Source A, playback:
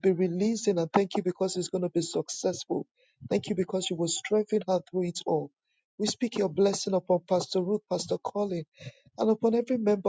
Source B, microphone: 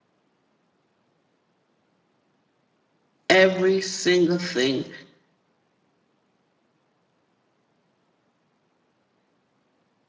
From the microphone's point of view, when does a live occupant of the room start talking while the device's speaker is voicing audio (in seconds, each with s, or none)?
3.3 s